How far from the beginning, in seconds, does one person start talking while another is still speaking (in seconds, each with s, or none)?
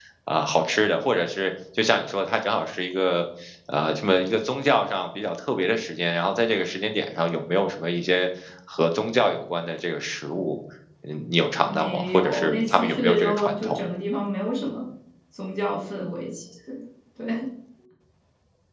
11.7 s